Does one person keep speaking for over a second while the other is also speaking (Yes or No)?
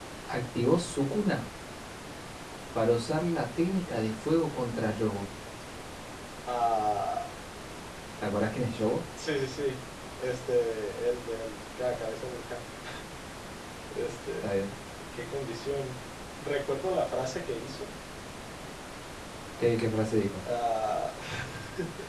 No